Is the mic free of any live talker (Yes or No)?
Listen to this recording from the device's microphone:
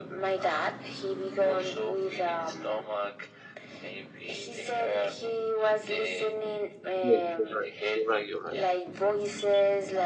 No